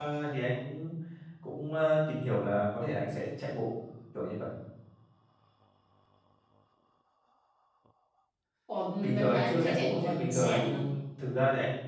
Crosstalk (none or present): present